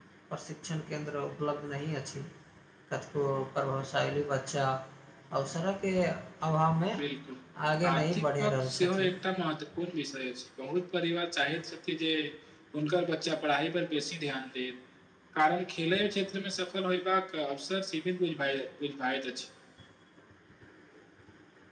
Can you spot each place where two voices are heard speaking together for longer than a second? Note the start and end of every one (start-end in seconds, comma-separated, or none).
7.9-9.1